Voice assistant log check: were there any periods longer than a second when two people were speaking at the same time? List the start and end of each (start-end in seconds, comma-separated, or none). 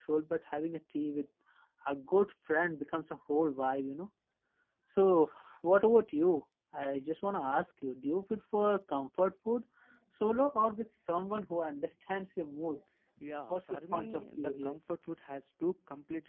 13.5-14.8